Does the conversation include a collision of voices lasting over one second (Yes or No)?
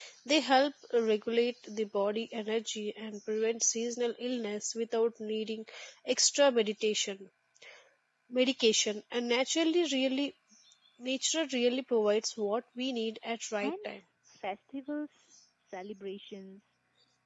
No